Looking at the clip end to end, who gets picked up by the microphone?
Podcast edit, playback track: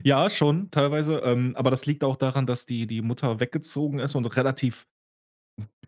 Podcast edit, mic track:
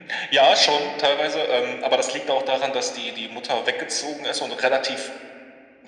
echo only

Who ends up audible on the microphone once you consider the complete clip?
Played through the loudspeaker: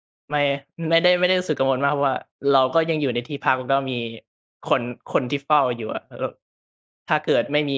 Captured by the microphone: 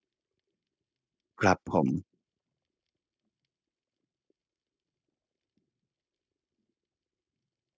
user only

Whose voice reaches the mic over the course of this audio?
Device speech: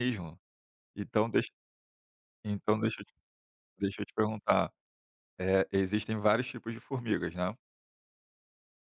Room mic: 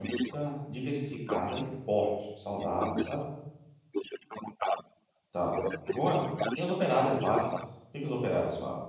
both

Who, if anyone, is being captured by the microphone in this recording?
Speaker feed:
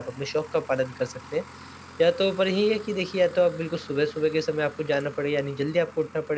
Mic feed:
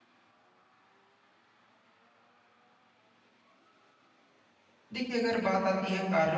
user only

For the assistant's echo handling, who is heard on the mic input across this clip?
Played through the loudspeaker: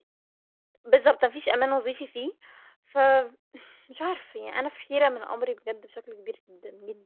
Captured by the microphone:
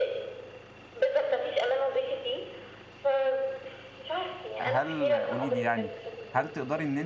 both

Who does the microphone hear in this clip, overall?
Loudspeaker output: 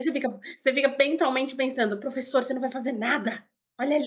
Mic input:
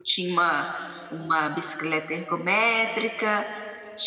user only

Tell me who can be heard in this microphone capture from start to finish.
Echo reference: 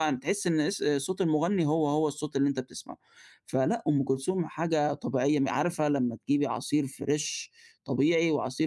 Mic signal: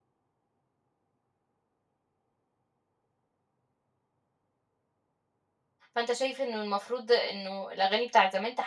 user only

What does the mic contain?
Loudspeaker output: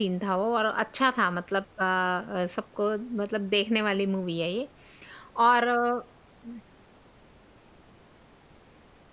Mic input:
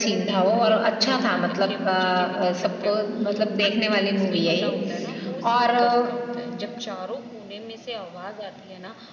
both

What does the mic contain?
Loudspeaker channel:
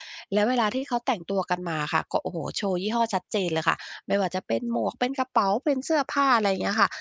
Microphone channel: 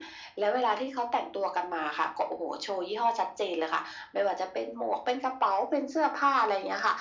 echo only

